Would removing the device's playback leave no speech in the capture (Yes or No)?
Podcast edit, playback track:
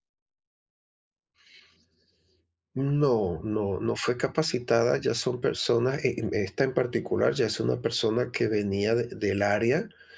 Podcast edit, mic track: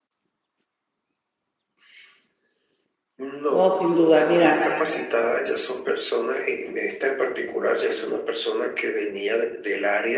No